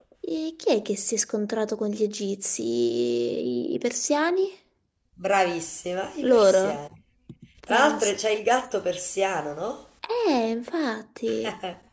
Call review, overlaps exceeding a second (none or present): none